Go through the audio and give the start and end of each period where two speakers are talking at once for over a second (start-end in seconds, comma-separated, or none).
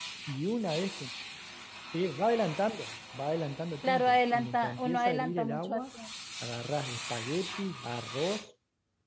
3.8-5.8